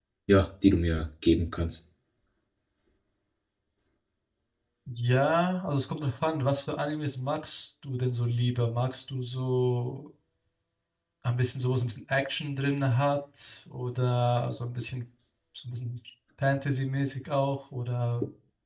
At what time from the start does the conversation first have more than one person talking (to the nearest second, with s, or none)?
none